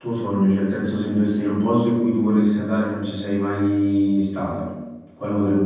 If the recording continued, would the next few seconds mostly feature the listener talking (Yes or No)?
Yes